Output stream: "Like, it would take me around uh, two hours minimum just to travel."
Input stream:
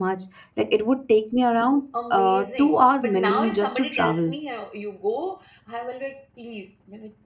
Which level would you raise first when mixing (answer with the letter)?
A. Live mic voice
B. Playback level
A